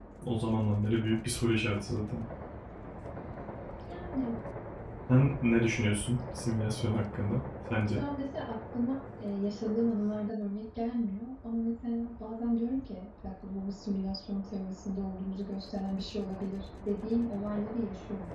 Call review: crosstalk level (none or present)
none